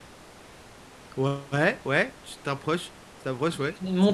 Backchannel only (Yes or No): No